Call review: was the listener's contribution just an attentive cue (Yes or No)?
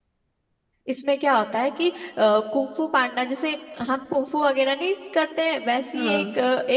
Yes